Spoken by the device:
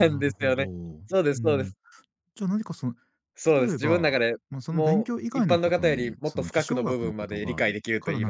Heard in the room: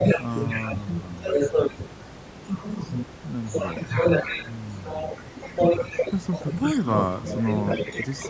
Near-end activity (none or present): present